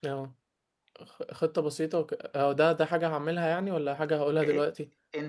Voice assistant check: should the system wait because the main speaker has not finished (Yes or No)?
No